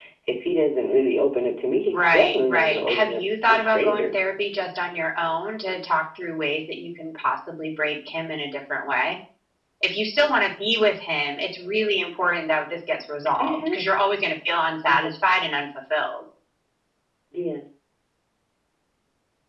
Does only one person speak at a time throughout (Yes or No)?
No